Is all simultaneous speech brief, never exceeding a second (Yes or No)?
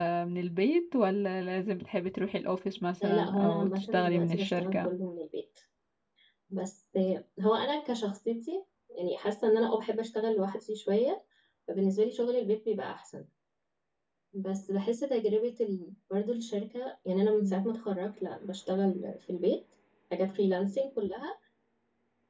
No